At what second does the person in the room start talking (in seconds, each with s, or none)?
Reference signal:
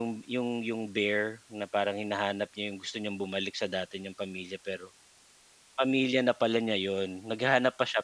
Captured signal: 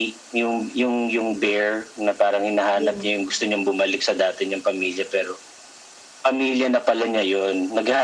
2.7 s